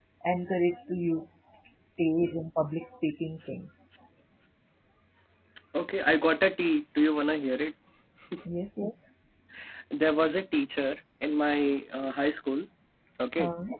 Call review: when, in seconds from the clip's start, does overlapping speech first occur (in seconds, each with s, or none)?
none